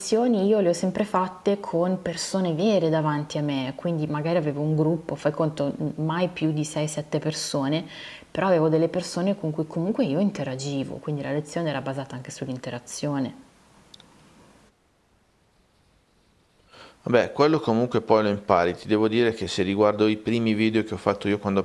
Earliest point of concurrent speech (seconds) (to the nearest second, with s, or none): none